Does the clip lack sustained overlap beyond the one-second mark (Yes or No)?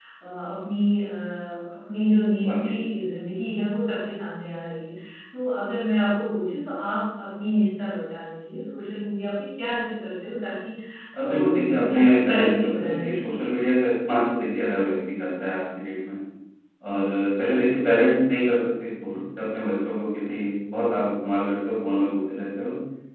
No